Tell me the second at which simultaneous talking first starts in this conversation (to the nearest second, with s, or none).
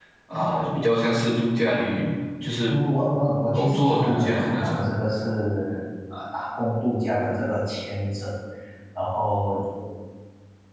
4 s